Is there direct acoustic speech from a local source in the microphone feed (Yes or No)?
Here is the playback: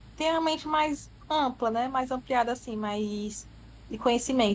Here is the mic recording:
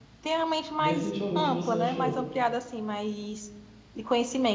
Yes